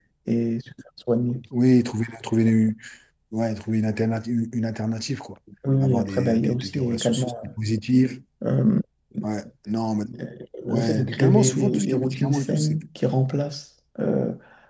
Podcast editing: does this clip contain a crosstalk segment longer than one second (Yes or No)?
Yes